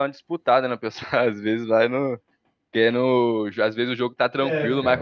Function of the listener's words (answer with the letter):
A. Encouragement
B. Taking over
A